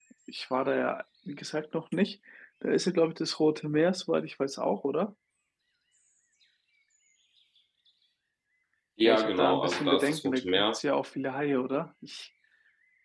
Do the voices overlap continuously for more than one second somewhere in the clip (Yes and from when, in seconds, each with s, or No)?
Yes, from 9.0 s